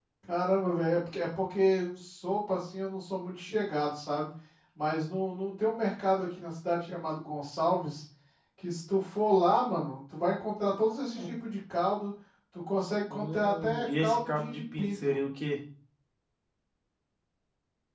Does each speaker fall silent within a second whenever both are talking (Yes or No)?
No